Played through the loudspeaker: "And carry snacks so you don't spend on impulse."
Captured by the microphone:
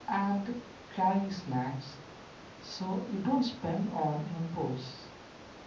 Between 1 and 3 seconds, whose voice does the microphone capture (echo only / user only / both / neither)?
echo only